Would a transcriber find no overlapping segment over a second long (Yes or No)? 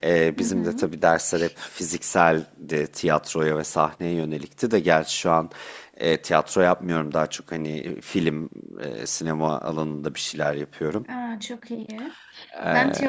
Yes